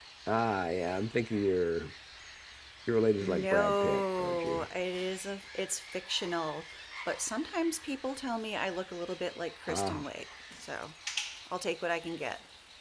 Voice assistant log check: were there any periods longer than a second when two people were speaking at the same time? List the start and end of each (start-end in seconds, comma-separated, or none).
3.2-4.7